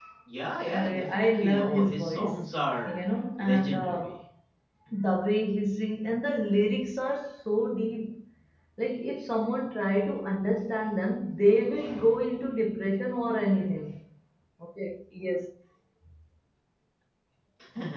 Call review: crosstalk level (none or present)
present